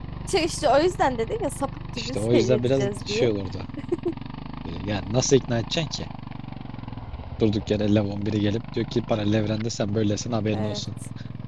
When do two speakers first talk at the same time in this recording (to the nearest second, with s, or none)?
2 s